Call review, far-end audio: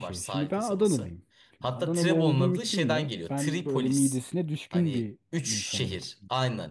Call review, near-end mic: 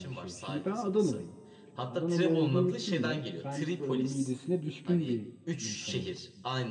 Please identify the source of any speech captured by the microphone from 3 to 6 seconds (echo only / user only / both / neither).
echo only